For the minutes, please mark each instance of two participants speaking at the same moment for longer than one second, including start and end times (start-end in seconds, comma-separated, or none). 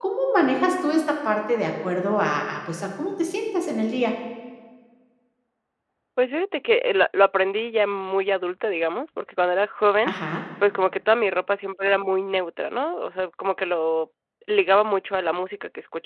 none